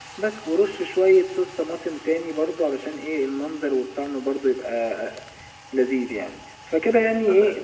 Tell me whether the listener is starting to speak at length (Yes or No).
No